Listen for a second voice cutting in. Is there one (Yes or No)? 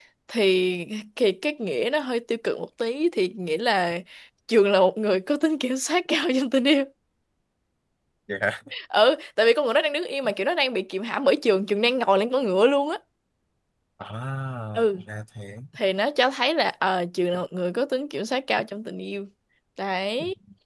No